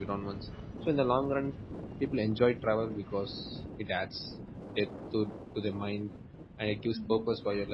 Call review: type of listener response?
listening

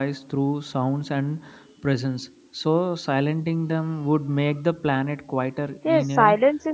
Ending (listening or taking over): taking over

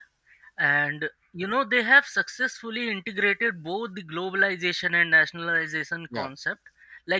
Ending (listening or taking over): listening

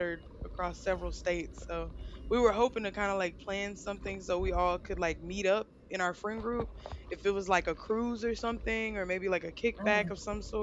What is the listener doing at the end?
listening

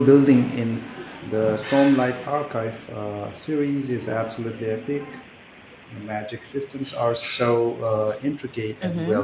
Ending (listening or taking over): taking over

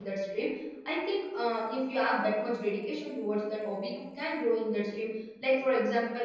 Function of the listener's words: listening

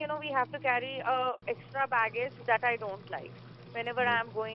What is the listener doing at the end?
listening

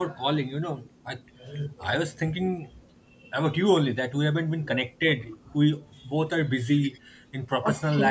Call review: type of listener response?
taking over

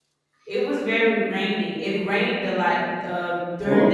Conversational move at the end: listening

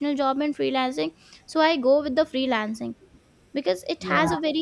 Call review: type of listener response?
listening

